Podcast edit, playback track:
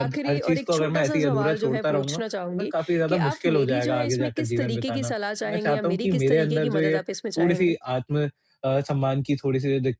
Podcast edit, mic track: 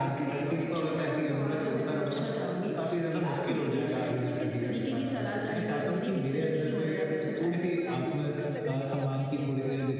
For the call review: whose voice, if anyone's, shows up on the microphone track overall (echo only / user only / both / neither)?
both